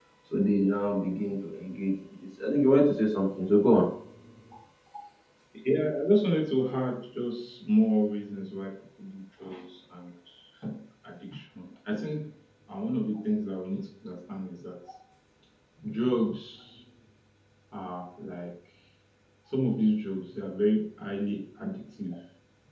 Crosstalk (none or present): none